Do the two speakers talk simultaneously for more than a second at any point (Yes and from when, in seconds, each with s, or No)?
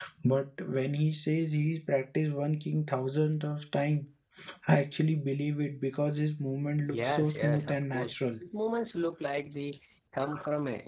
Yes, from 6.9 s